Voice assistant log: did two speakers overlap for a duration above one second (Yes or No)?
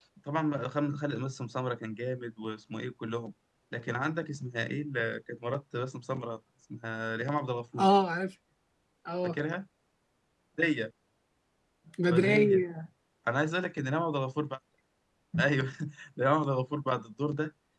No